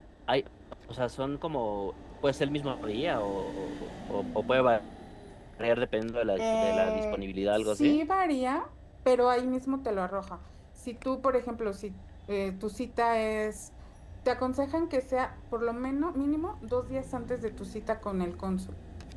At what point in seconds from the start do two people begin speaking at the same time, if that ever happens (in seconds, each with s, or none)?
6.4 s